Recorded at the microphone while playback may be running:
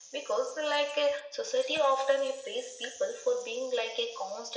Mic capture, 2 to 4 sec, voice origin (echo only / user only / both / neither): echo only